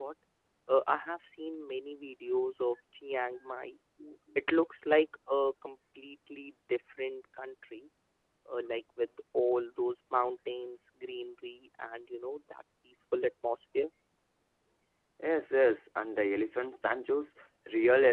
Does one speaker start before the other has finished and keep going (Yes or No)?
No